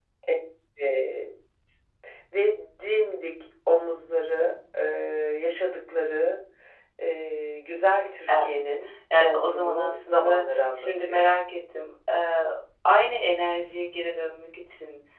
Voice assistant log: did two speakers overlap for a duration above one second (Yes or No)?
Yes